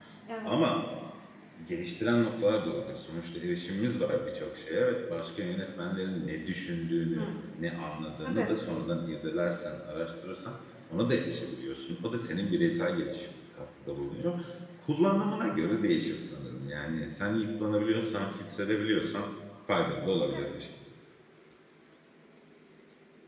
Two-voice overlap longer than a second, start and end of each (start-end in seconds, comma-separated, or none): none